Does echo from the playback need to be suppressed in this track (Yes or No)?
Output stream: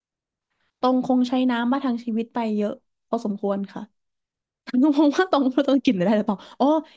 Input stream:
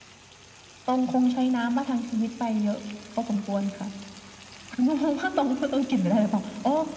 Yes